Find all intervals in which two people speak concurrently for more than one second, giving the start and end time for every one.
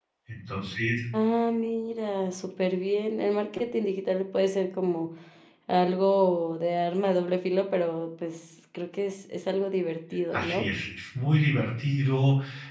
none

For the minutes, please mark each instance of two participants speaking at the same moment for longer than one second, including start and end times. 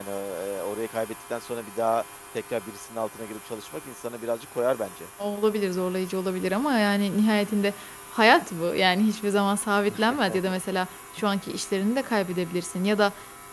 none

